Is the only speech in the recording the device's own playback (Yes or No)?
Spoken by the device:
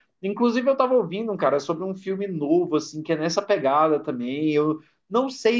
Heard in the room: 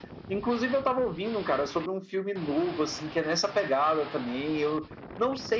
Yes